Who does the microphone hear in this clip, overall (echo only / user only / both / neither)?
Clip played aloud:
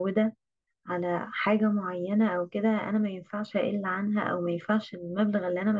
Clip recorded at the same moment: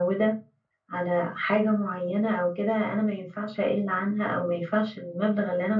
echo only